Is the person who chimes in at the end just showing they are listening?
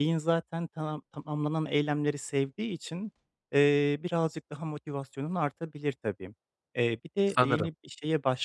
Yes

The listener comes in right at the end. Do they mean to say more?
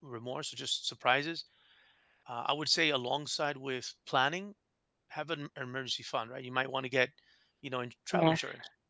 No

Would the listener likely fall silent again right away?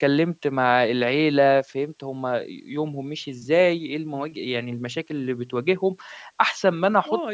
No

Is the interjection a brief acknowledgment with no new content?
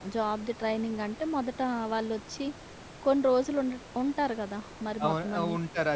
No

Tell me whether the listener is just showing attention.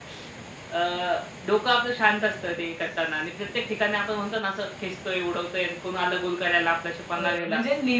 No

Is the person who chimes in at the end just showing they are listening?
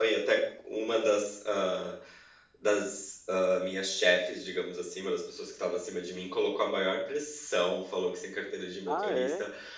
Yes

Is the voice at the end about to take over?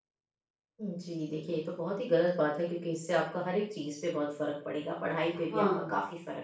No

